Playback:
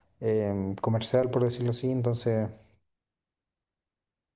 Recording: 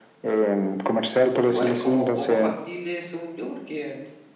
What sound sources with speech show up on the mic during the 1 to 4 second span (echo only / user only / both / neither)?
both